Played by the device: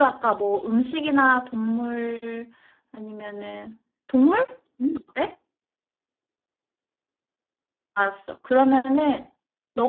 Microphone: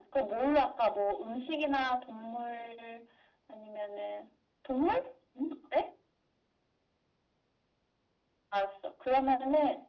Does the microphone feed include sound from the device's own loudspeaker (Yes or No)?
Yes